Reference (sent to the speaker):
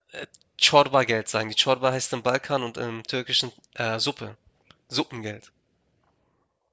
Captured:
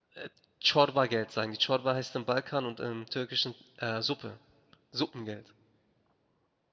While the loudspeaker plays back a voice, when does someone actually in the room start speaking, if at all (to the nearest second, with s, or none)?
none